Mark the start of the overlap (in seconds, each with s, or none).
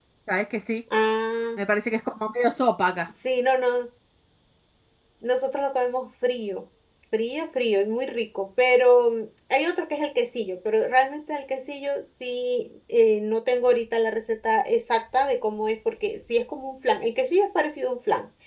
none